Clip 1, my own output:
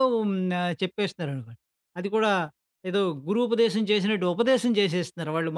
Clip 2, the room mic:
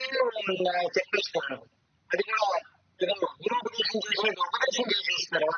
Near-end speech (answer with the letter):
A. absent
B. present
A